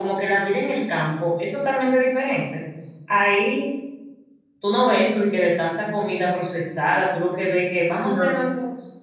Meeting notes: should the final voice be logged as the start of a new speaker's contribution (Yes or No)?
No